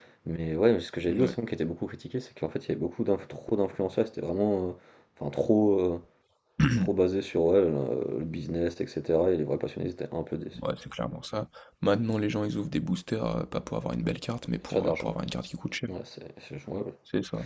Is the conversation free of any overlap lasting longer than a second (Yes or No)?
Yes